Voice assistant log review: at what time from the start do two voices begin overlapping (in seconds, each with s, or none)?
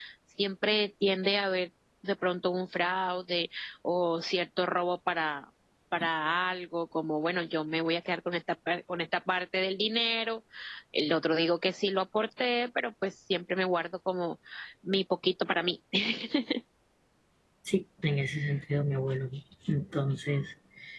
none